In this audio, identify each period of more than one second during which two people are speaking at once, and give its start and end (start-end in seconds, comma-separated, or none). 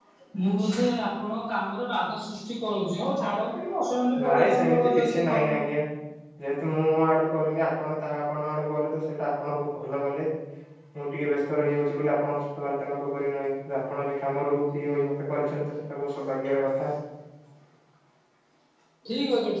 4.2-5.6